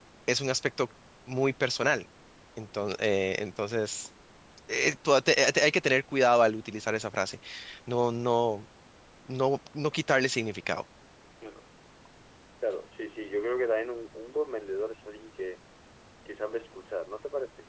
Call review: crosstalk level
none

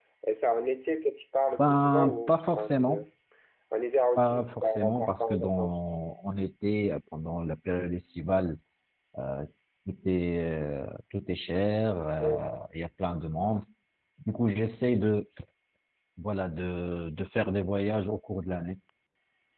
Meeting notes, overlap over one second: present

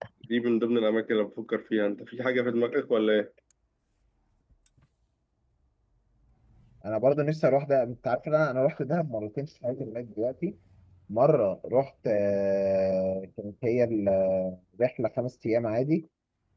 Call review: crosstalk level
none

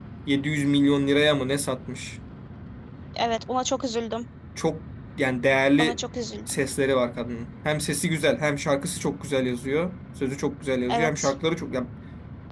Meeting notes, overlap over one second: none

